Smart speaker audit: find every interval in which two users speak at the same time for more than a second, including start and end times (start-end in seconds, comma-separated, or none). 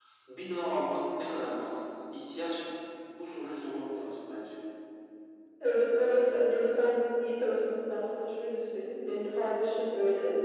none